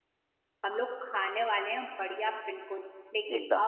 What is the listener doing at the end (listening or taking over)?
listening